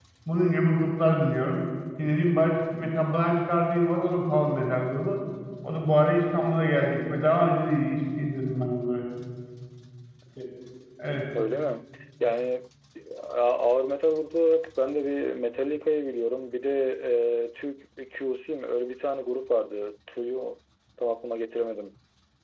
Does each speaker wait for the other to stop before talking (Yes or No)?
Yes